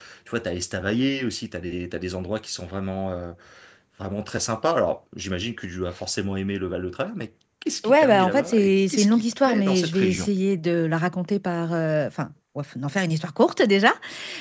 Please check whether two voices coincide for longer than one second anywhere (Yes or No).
Yes